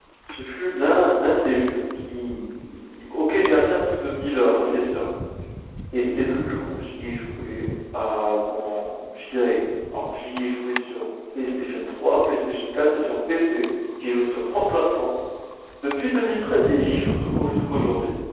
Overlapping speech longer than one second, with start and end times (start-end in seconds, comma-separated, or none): none